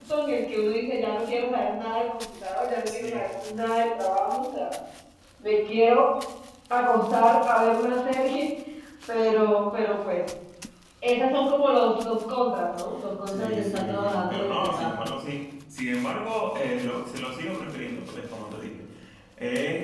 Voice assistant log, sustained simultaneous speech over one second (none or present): present